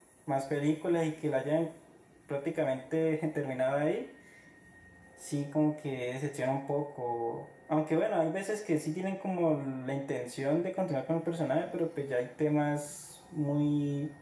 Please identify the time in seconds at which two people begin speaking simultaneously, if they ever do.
none

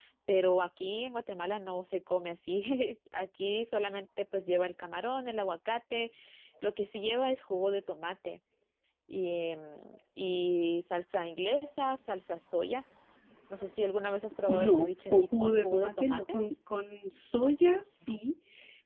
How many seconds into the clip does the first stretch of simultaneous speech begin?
14.5 s

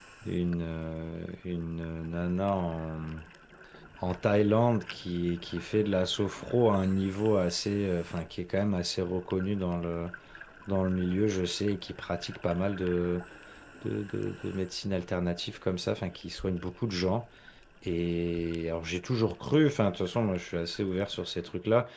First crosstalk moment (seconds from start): none

